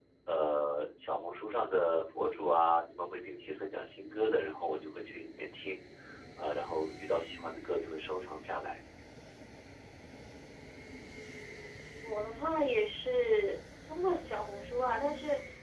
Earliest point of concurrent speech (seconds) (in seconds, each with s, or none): none